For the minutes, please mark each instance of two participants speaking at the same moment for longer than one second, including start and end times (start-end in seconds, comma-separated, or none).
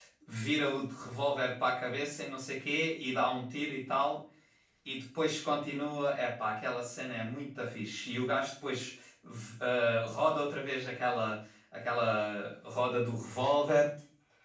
none